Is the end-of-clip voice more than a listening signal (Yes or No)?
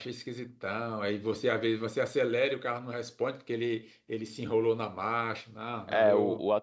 Yes